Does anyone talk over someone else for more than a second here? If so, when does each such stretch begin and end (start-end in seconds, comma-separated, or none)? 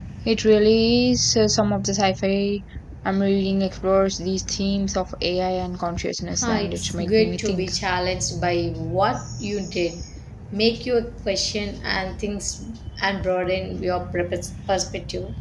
6.4-7.7